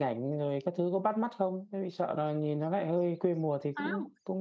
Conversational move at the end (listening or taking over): taking over